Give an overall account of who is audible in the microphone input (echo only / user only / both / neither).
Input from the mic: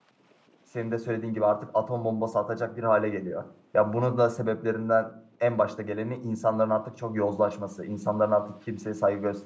user only